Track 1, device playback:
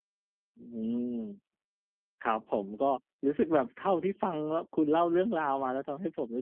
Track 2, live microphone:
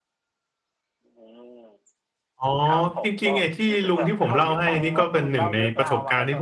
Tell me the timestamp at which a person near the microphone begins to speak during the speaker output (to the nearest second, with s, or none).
2 s